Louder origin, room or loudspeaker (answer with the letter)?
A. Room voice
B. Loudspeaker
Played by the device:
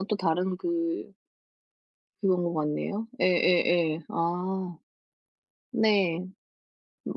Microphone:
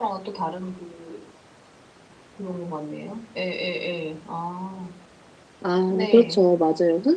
A